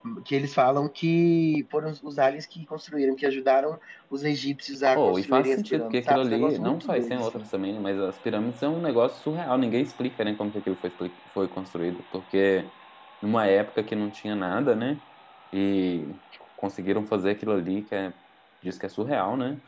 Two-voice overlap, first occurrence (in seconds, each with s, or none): 5.0 s